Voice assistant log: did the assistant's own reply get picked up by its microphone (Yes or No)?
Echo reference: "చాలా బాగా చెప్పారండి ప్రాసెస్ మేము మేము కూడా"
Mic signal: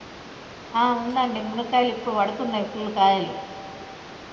No